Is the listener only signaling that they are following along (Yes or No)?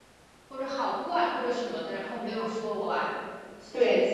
No